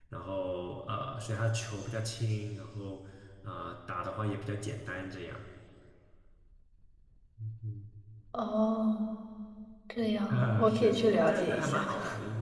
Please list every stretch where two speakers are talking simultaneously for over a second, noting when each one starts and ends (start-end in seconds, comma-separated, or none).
10.3-11.9